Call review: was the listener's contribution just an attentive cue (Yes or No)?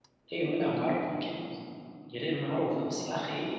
Yes